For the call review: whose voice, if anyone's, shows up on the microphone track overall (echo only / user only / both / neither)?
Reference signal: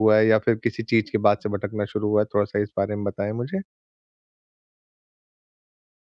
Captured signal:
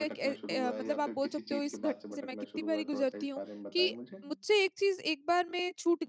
both